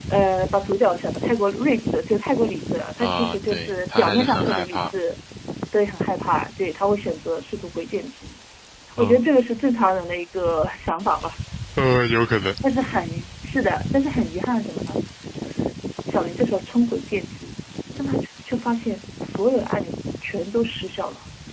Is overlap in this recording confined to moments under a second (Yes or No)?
No